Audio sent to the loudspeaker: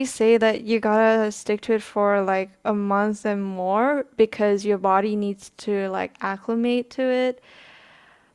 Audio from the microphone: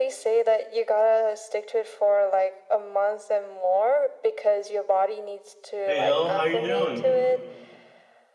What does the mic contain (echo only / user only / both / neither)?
both